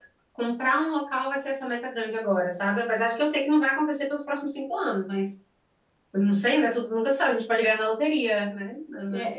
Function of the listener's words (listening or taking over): taking over